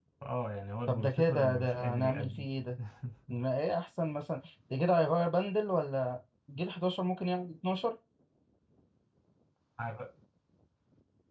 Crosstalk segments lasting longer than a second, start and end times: 0.9-2.5

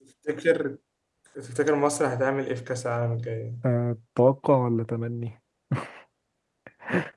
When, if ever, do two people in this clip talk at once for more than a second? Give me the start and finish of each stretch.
none

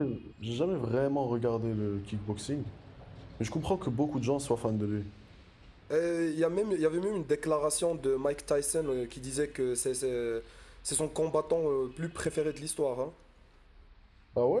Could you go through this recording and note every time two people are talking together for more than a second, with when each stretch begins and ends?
none

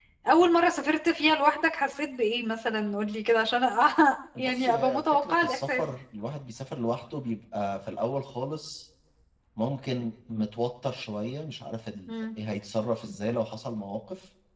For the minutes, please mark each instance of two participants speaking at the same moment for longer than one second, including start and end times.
4.4-5.8

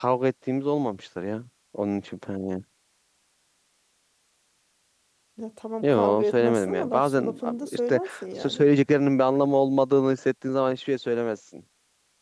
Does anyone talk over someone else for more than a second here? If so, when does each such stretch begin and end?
5.8-8.6

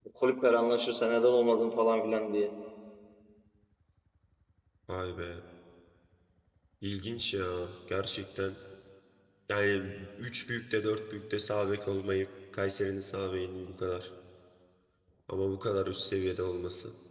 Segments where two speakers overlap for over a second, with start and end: none

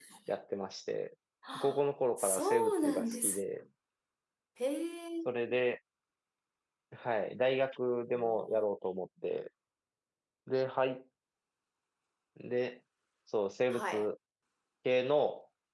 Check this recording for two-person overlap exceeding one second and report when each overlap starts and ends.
2.2-3.4

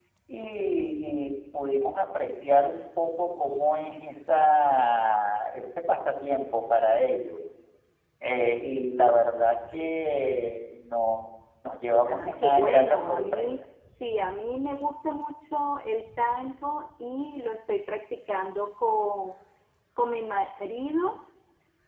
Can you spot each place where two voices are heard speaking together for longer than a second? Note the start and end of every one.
12.1-13.5

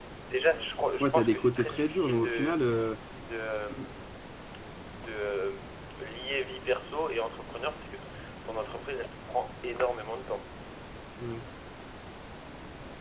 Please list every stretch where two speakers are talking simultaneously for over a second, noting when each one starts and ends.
1.0-2.6

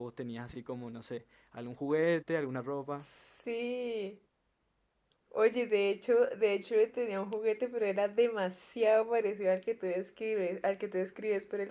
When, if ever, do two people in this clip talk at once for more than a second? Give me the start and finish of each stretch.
none

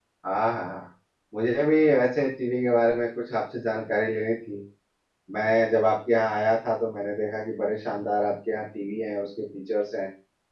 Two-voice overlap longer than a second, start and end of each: none

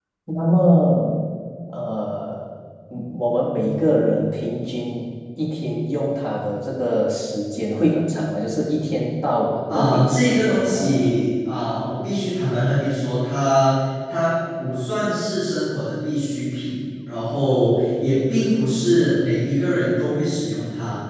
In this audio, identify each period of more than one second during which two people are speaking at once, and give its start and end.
9.7-11.1

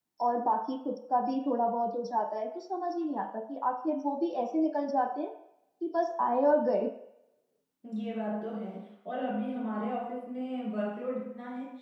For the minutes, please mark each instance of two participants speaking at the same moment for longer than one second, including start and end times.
none

